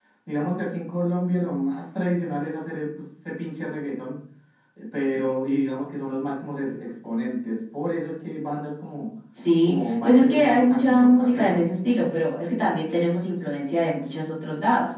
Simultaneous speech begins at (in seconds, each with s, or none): 9.6 s